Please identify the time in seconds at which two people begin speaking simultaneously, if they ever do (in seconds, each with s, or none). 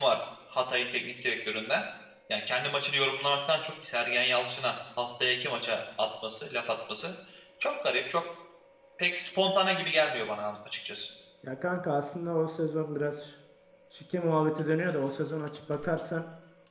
none